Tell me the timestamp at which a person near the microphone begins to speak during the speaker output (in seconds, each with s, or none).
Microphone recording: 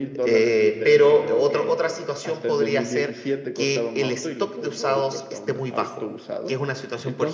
none